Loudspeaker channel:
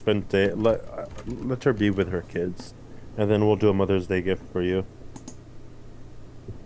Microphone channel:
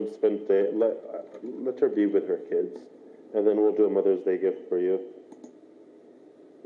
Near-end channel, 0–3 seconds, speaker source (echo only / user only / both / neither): echo only